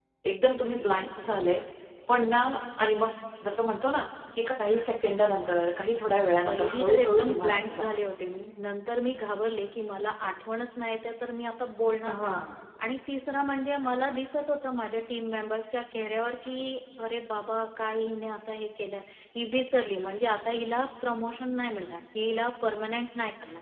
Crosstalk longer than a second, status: present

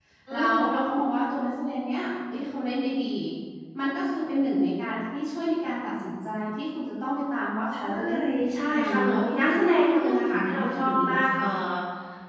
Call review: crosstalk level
present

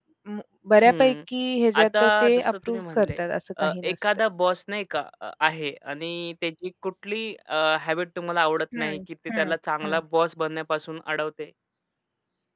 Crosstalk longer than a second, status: present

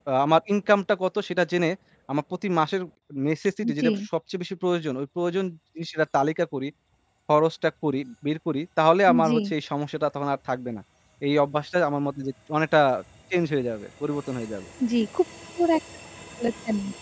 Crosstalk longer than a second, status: none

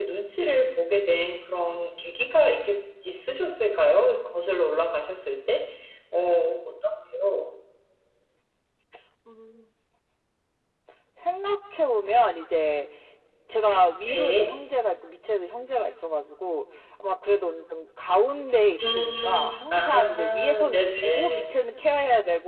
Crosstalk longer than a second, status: present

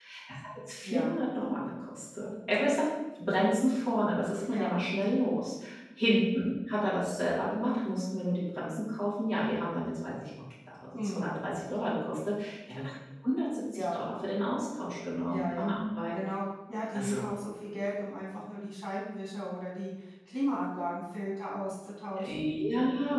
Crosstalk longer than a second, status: none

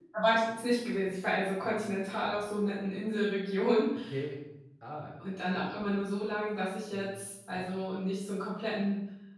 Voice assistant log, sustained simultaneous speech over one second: none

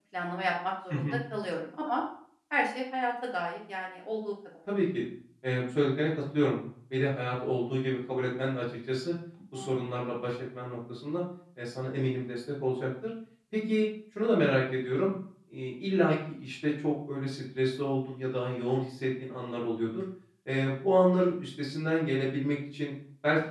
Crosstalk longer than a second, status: none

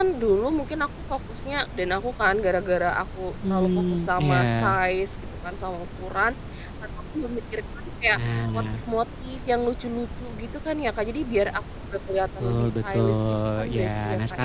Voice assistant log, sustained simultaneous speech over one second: present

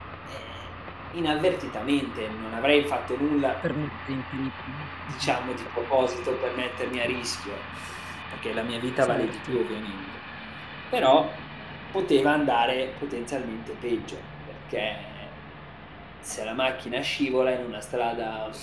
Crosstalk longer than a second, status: none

